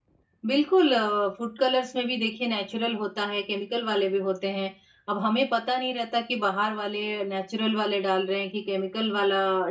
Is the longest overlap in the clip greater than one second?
No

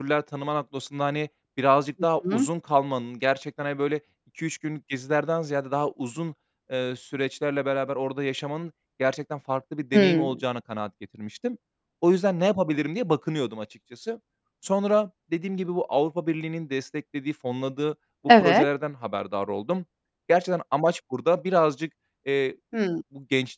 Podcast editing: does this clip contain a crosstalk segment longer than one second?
No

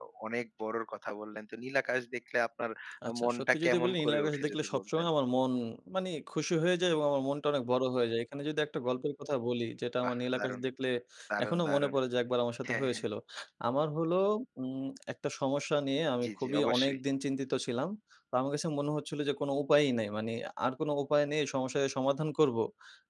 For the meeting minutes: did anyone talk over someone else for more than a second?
Yes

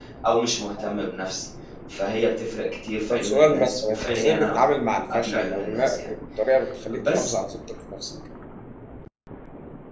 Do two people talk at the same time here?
Yes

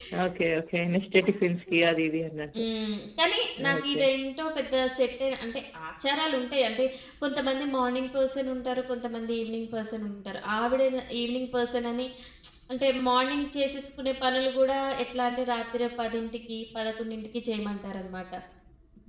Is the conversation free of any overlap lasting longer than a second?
Yes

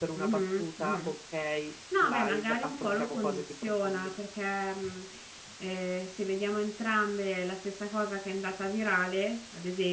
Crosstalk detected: Yes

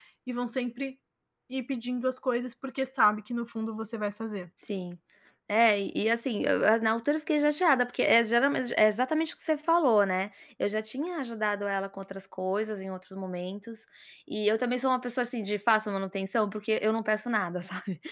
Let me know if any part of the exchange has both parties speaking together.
No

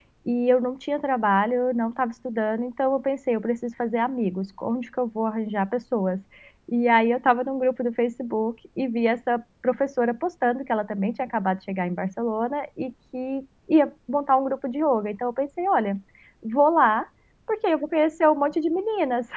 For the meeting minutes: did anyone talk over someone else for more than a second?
No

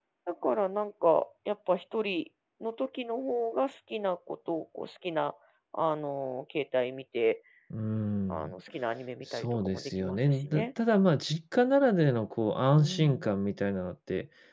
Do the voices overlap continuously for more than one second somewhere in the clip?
Yes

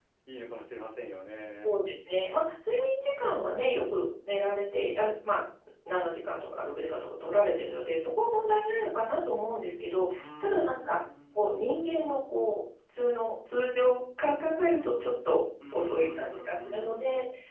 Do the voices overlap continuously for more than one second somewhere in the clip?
Yes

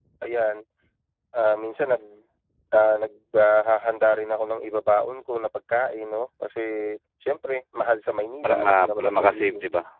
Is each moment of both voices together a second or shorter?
No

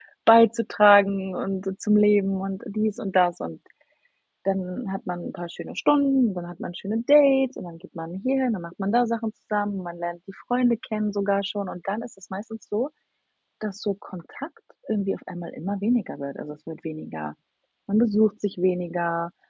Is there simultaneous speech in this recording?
No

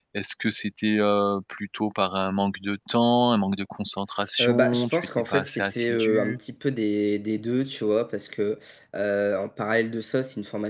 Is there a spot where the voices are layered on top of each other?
Yes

